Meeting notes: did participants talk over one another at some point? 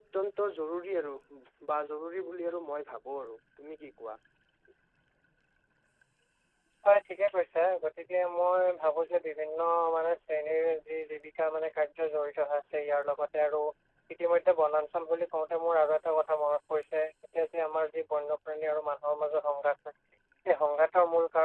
No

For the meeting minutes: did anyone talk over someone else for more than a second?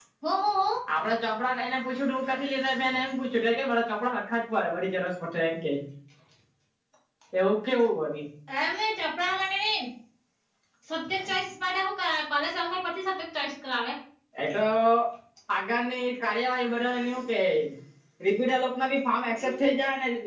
No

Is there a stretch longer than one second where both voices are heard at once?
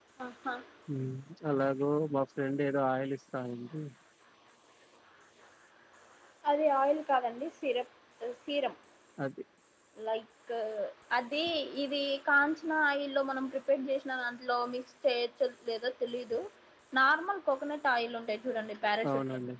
No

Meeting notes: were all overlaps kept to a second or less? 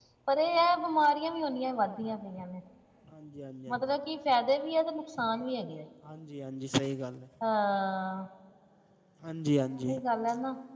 Yes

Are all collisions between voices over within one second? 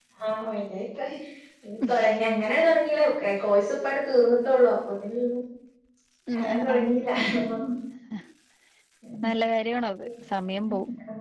Yes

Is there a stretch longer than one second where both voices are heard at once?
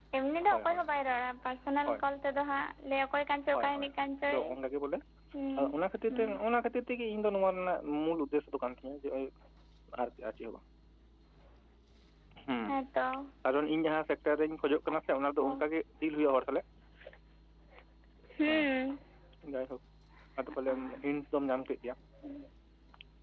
No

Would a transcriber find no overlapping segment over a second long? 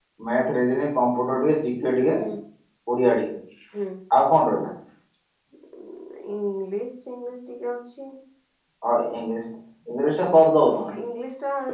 Yes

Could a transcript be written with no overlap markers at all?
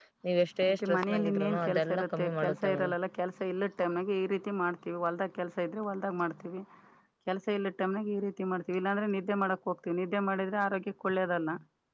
No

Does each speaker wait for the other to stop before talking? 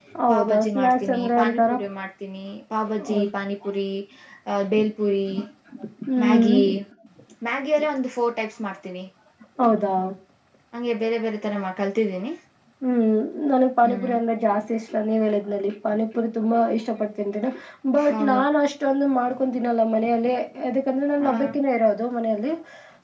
No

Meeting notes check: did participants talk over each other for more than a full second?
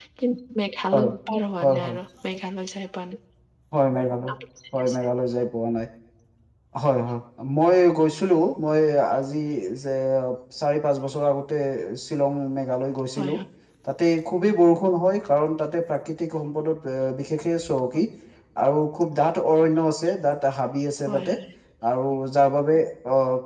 No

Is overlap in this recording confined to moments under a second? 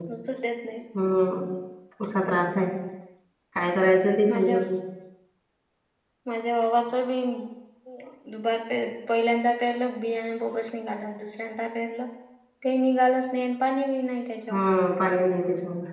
Yes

